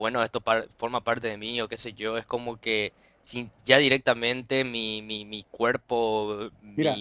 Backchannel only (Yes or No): No